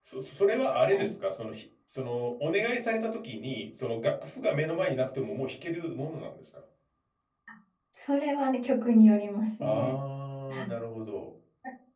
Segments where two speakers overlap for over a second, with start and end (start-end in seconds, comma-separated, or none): none